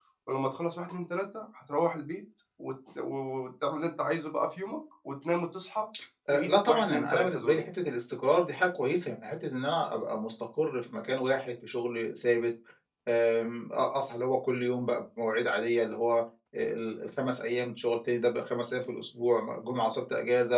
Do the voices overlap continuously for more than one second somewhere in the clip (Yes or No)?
Yes